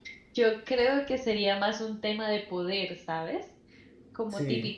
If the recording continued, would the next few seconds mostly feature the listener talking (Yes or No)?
No